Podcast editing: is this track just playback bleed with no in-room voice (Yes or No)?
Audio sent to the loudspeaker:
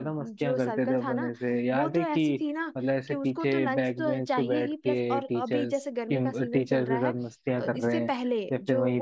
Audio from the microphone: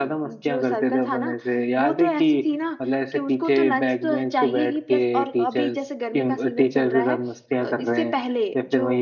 Yes